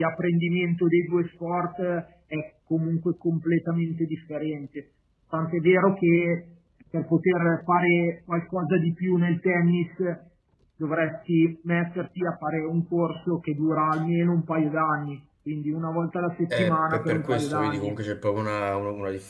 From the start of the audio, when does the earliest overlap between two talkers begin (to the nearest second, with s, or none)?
17 s